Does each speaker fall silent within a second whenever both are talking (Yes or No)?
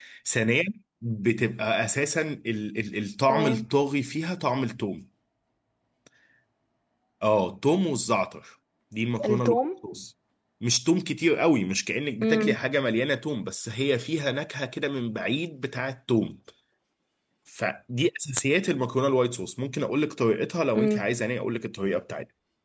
Yes